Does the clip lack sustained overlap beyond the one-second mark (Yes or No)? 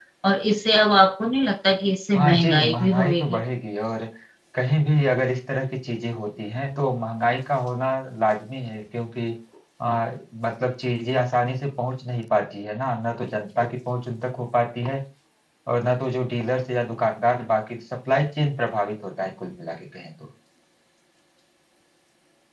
No